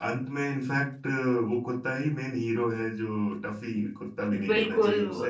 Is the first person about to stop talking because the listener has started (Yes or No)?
Yes